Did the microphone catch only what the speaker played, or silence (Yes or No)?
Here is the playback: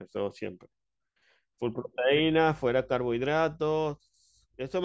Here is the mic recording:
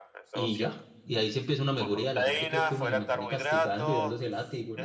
No